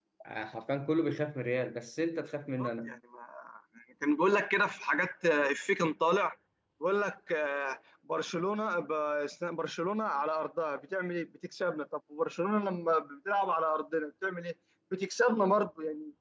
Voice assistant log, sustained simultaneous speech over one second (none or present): none